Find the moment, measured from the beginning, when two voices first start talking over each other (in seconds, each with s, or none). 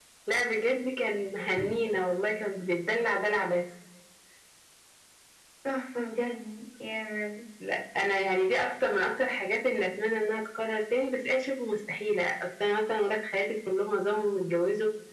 none